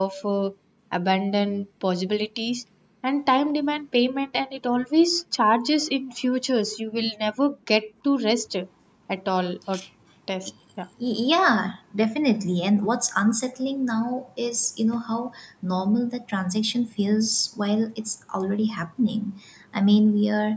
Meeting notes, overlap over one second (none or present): none